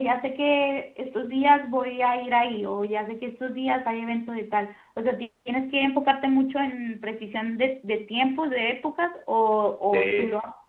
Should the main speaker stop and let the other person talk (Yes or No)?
Yes